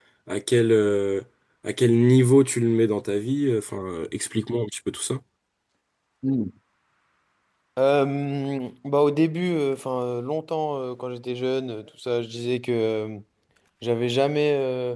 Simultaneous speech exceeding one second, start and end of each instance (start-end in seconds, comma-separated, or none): none